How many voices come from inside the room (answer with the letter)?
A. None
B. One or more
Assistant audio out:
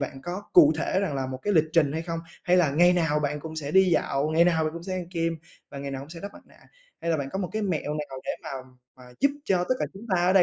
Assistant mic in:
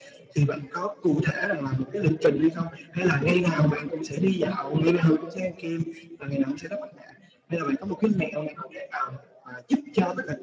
A